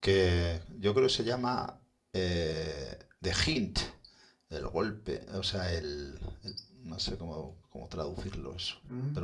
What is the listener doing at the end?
taking over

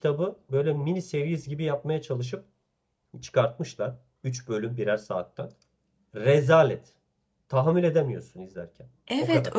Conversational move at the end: taking over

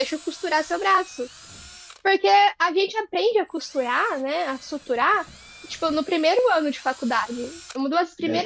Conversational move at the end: taking over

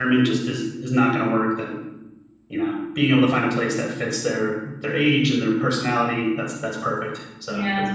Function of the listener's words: taking over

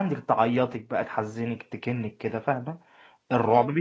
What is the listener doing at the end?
listening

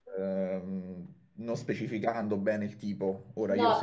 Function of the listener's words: taking over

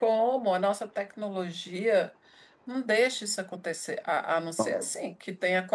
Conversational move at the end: listening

